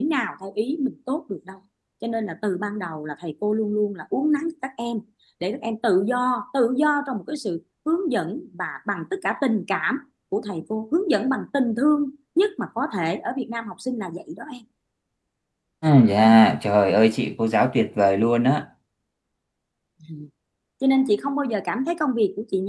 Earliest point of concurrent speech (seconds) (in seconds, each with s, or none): none